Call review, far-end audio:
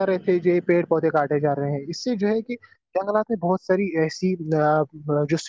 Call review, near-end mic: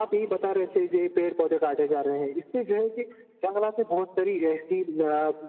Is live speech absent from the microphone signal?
Yes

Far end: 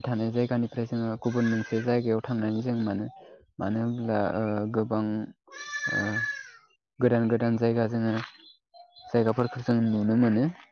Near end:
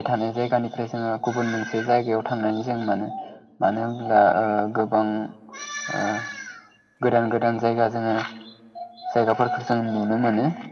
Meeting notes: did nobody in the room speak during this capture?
Yes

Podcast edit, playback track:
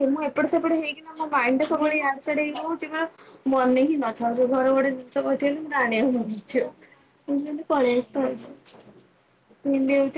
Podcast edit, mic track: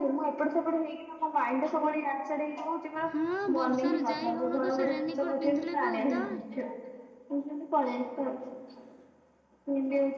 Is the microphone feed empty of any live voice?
No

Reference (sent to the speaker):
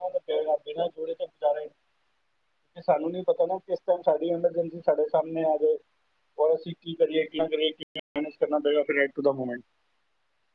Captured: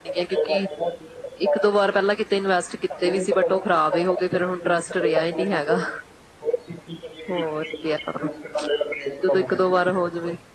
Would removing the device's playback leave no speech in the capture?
No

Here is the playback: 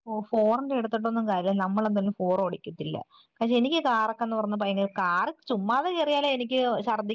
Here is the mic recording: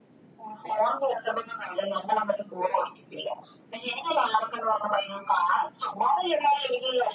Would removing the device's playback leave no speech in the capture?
Yes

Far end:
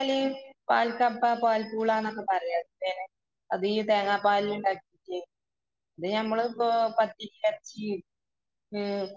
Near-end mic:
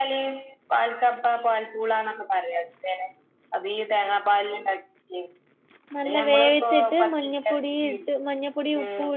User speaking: Yes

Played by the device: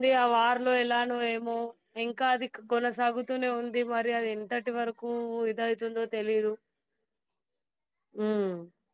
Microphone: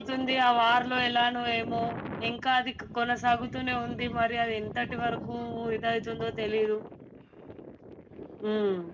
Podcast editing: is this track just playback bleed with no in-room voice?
Yes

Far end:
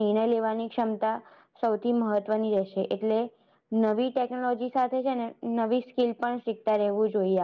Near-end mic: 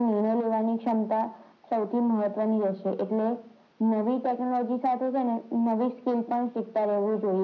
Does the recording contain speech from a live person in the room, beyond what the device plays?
No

